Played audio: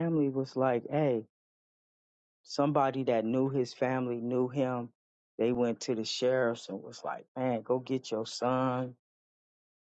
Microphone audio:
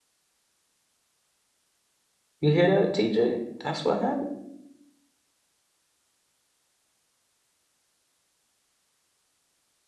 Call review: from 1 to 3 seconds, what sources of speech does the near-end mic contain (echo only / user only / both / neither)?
user only